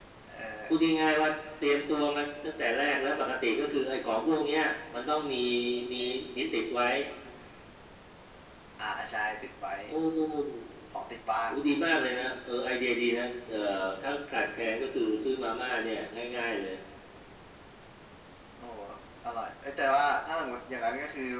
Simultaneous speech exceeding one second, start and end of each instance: none

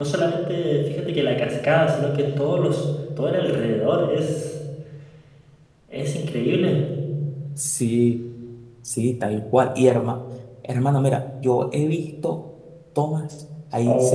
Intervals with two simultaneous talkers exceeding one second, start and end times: none

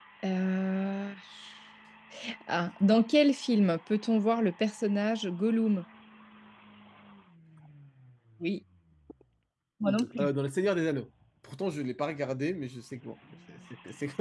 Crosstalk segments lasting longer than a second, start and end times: none

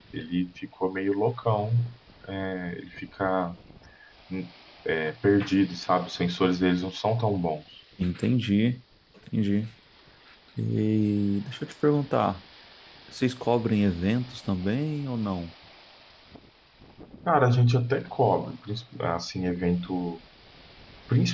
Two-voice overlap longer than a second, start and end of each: none

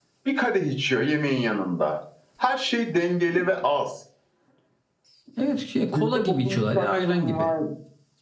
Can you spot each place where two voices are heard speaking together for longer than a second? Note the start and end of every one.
5.9-7.5

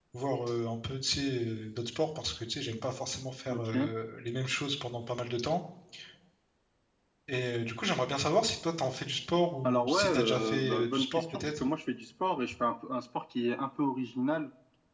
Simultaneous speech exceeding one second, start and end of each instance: 9.6-11.6

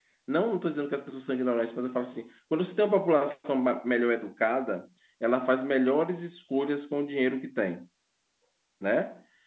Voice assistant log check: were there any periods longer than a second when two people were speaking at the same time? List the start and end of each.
none

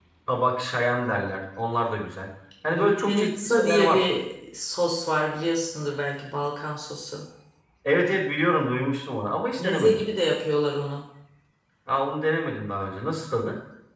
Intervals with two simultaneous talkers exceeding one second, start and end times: 2.7-4.0

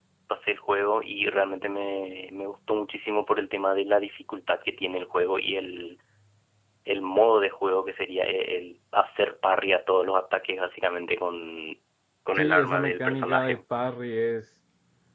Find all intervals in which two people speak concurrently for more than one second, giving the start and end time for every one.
12.4-13.6

